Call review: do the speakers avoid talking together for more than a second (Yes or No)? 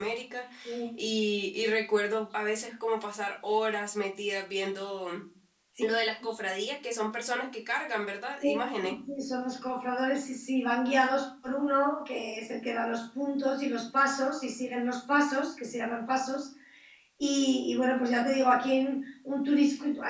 Yes